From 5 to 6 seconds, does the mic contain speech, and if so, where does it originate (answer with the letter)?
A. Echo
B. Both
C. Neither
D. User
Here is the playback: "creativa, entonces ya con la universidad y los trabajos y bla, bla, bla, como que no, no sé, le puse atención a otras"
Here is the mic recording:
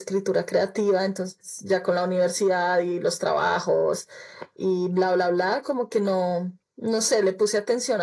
A